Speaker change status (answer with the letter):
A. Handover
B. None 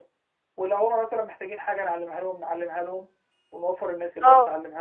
B